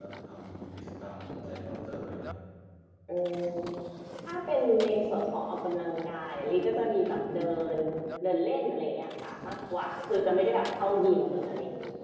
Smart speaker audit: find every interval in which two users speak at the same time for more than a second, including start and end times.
none

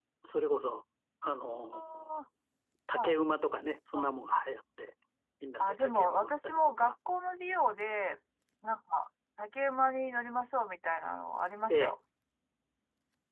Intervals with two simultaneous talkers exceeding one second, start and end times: 5.6-6.9

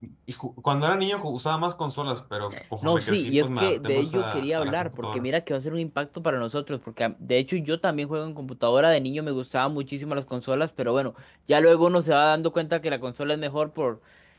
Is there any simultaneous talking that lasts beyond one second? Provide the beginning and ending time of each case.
2.8-5.3

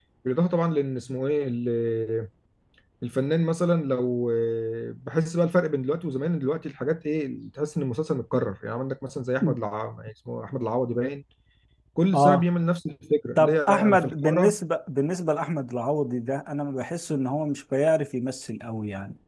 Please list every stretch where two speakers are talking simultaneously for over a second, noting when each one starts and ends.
13.4-14.6

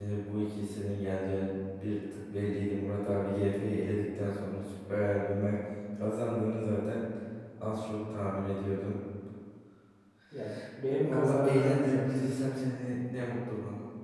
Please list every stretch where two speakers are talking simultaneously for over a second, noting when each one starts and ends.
11.0-12.3

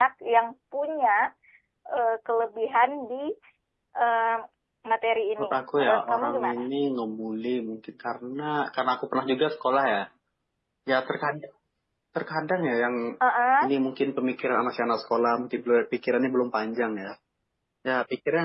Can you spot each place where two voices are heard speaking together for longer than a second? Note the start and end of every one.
5.4-6.6

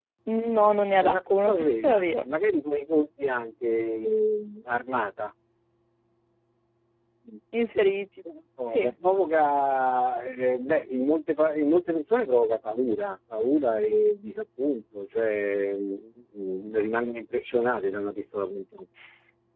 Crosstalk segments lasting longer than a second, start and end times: 1.0-2.2

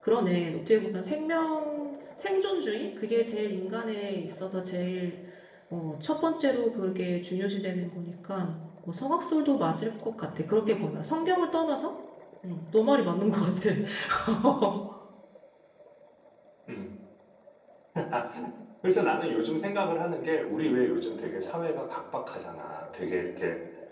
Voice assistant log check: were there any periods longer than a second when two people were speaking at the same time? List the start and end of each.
none

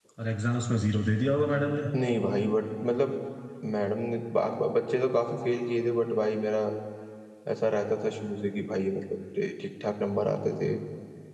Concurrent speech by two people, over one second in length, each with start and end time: none

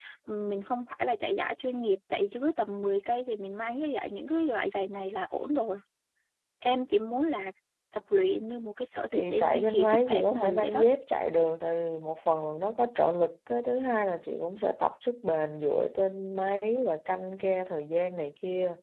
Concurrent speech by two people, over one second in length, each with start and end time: 9.1-10.8

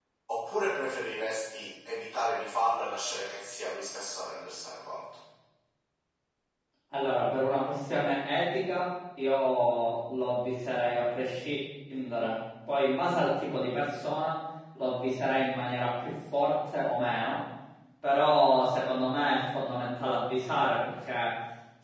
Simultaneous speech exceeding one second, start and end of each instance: none

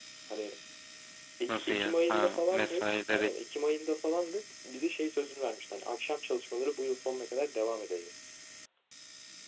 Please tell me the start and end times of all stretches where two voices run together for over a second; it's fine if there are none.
1.5-3.3

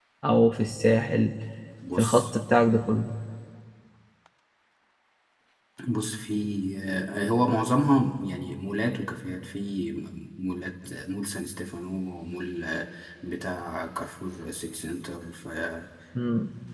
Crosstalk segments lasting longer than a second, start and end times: none

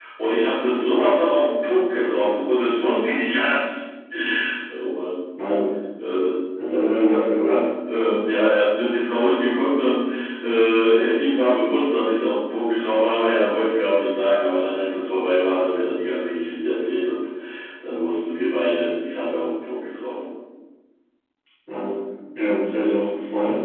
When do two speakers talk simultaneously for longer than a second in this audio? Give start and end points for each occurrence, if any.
none

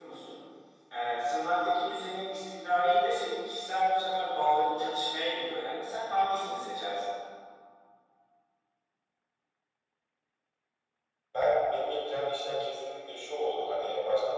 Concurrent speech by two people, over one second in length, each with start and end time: none

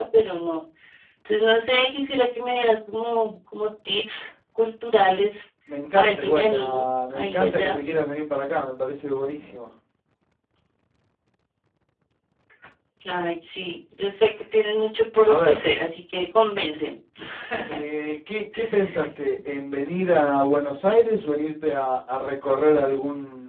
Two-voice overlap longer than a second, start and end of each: 5.9-7.8

